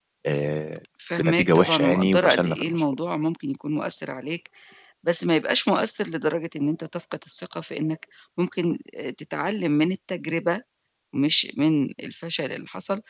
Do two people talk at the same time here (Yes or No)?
Yes